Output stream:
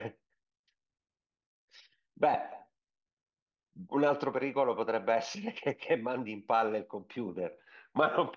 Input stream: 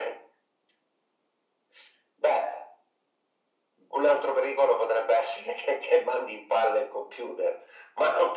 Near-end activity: none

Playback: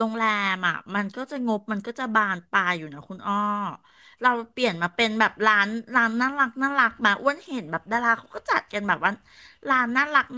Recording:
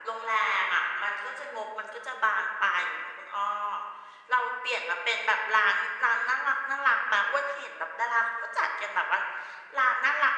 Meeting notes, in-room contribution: none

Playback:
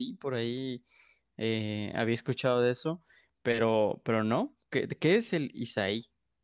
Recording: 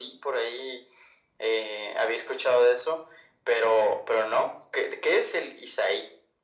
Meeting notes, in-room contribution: none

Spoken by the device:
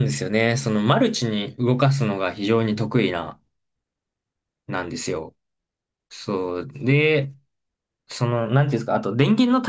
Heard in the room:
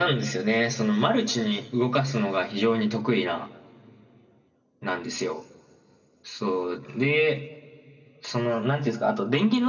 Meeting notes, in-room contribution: none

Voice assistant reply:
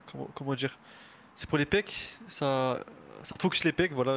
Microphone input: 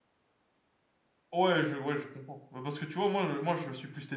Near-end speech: present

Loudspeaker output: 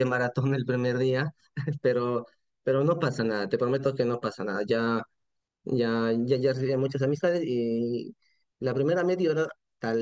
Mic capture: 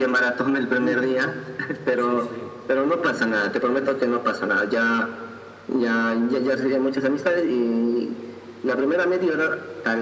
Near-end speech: present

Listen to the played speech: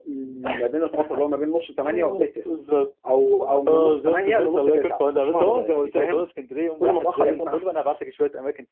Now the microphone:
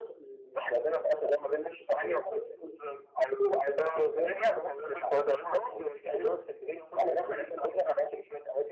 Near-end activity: none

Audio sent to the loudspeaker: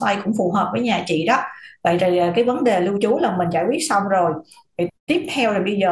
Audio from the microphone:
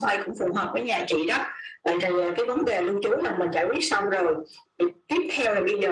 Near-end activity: none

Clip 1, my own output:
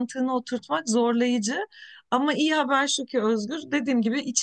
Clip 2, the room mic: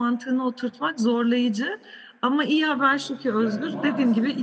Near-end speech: present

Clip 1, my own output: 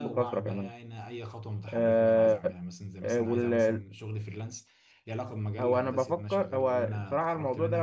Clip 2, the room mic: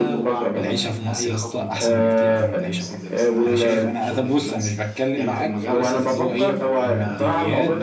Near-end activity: present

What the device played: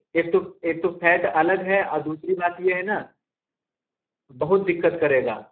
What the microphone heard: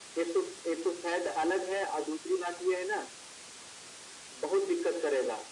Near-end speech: none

